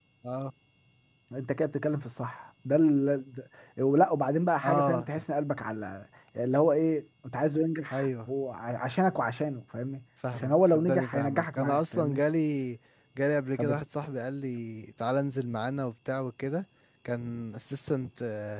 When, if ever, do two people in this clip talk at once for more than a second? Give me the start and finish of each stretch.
10.4-12.2

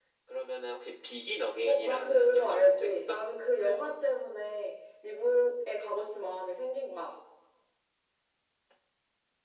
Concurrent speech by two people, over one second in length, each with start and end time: 1.6-3.2

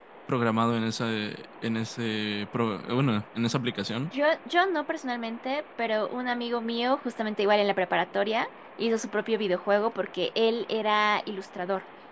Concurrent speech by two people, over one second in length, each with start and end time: none

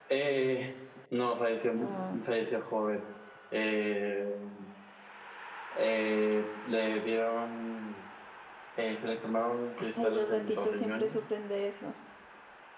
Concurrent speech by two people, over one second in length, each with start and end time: 10.0-11.2

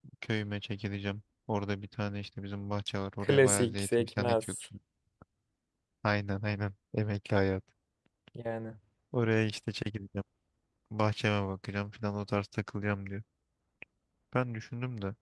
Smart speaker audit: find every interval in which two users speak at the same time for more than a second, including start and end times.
3.2-4.6

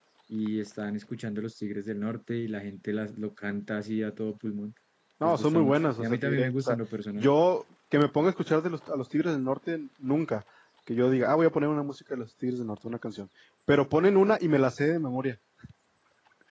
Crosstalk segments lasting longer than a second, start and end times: 5.2-6.8

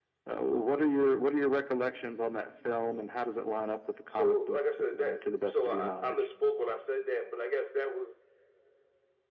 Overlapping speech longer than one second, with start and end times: 4.1-6.3

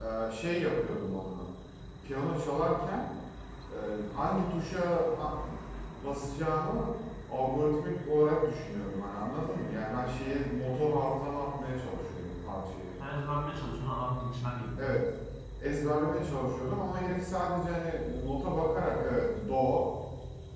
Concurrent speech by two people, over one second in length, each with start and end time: none

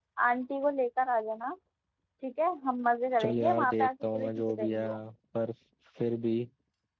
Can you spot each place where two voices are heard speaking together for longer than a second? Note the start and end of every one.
3.2-4.9

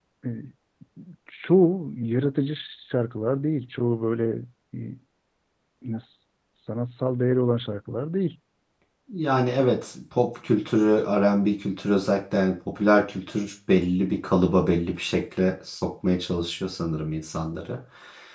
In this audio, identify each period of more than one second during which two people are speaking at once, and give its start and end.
none

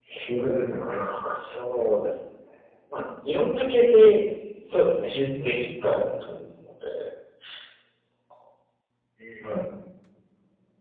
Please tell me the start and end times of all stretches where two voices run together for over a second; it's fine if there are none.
4.7-6.0

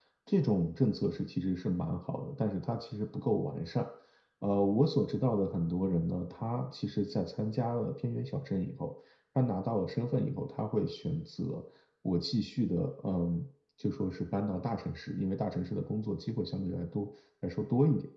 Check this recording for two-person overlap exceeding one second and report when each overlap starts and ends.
none

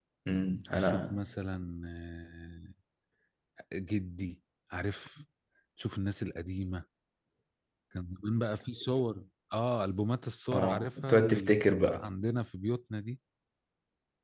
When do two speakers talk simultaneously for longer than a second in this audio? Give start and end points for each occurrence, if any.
10.5-12.1

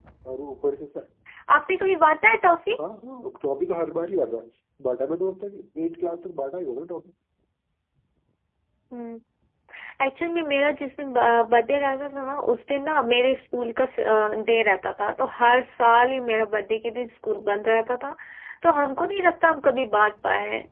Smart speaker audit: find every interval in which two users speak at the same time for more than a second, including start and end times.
none

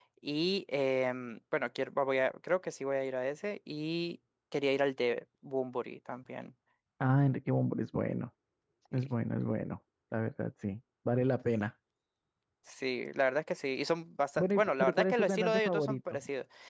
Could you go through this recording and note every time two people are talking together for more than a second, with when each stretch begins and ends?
14.4-16.2

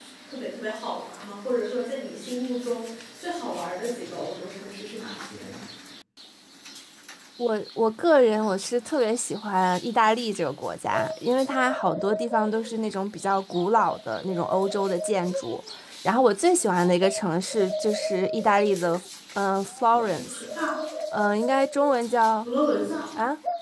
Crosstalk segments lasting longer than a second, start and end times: none

